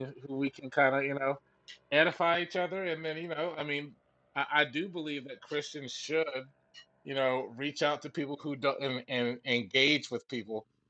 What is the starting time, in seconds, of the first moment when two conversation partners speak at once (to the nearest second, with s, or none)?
none